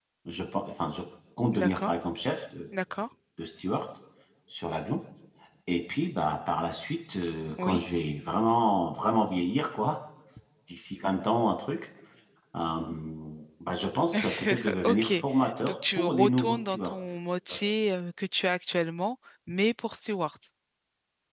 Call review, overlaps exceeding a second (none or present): present